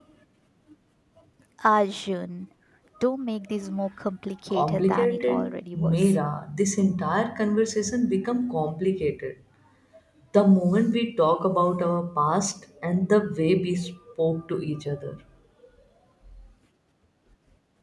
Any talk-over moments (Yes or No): Yes